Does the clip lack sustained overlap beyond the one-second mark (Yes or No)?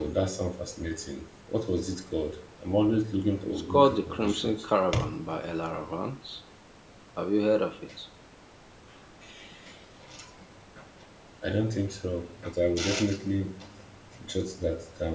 No